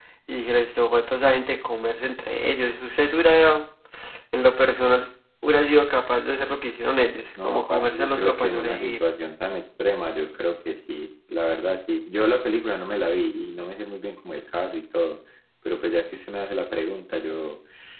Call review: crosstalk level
present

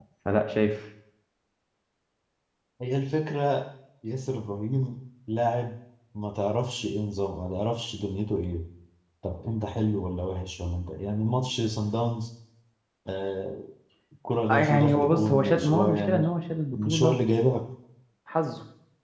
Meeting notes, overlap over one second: present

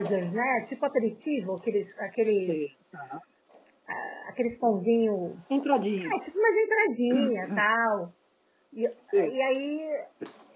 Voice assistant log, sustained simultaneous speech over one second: none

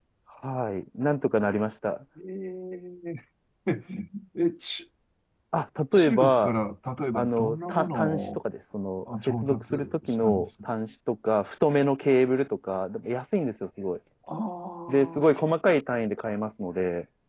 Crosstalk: present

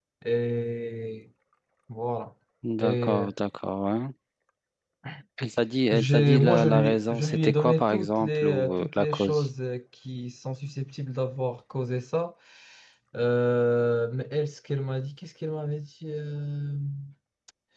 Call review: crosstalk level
present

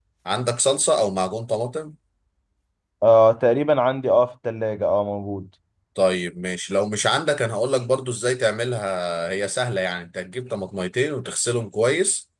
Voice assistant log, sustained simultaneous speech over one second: none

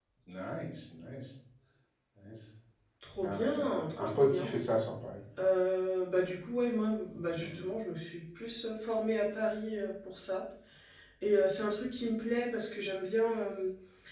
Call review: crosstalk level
present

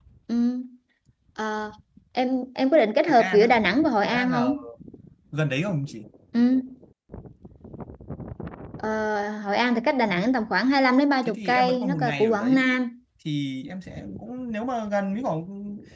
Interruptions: present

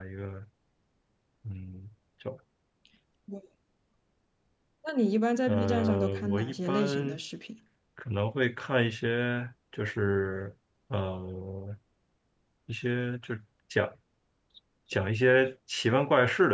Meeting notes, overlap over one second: present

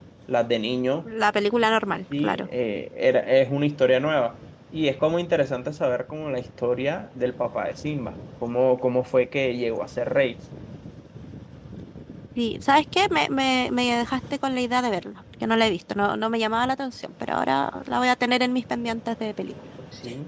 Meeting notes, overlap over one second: none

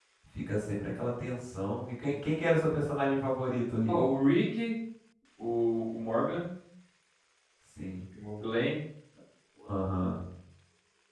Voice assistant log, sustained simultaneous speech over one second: none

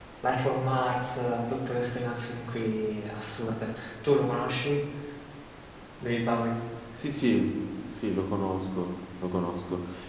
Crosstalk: none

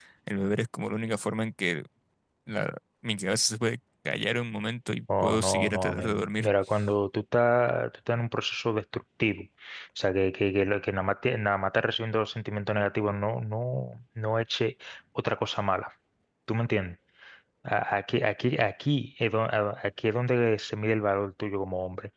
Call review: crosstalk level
present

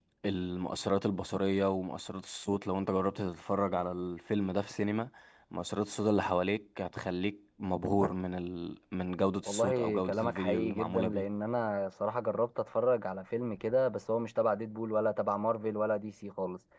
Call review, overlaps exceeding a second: present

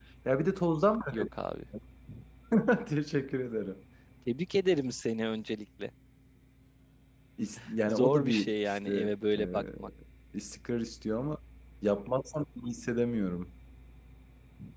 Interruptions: present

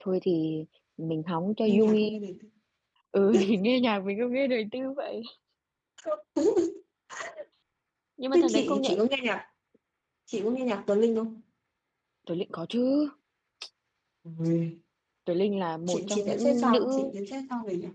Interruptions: present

